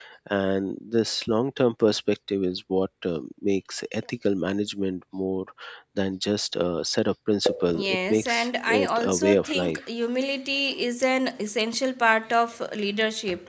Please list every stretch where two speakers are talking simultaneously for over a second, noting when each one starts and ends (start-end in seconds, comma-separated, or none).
7.8-9.8